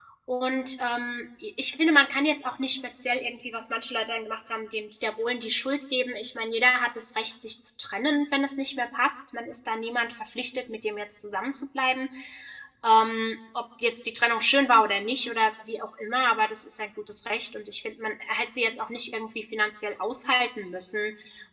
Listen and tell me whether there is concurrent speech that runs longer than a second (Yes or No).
No